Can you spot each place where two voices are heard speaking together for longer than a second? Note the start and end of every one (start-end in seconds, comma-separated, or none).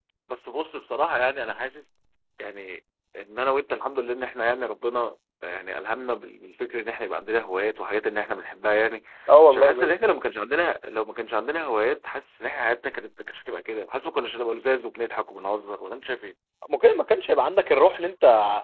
none